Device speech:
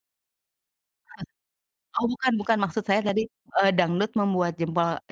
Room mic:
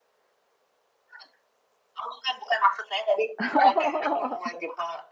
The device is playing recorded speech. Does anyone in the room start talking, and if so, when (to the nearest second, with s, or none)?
3 s